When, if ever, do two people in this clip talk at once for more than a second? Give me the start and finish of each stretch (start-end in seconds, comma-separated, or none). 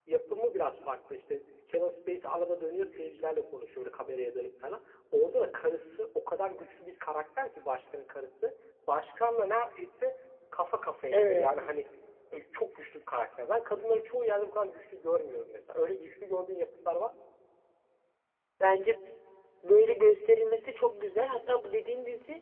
none